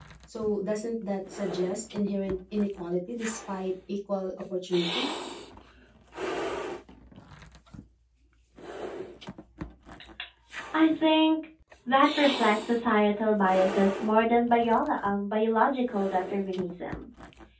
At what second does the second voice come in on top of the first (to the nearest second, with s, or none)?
none